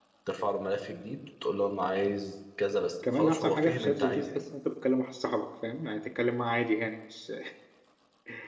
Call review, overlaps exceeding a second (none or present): present